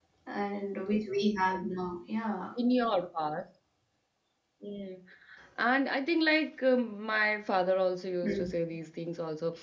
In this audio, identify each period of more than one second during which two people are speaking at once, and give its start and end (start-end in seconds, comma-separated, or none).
none